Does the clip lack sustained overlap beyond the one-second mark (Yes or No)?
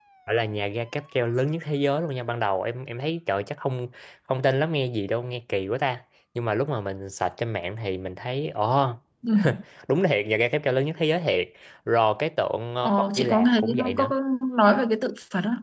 No